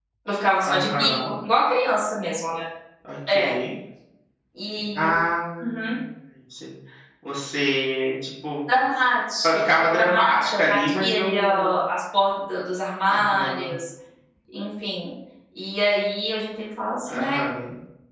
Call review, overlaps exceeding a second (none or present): present